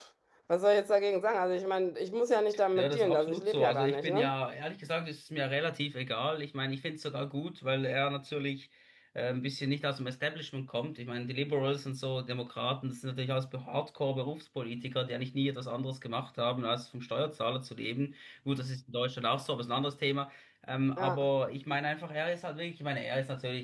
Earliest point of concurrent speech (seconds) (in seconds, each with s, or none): 2.8 s